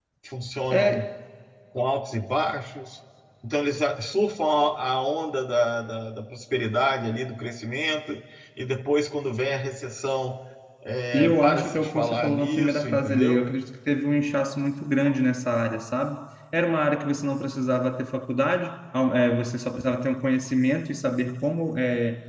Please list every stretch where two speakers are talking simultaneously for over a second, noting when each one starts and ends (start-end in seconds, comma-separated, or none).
11.2-13.4